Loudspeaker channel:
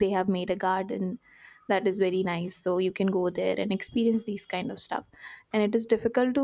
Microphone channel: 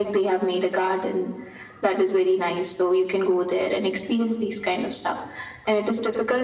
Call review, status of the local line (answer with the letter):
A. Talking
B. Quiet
B